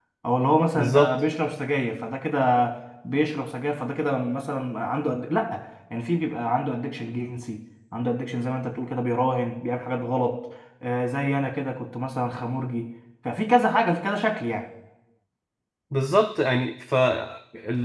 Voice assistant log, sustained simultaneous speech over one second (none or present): none